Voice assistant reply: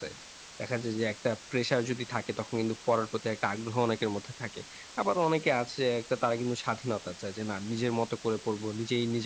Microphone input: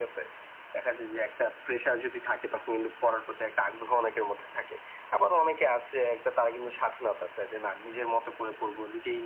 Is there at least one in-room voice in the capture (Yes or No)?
No